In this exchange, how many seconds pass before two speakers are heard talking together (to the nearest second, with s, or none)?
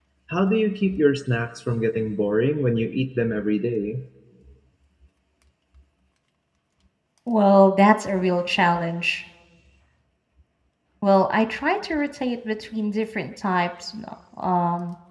none